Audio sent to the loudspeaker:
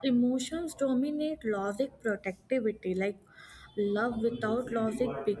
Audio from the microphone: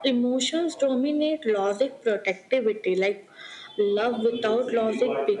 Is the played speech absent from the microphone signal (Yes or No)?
No